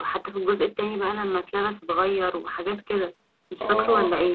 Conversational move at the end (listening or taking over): taking over